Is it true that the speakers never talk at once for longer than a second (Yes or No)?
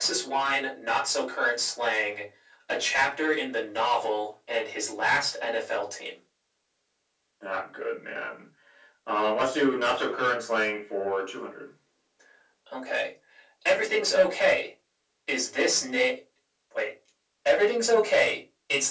Yes